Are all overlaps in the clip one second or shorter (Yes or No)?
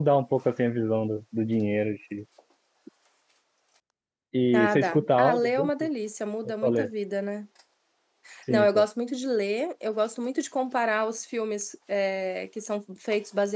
No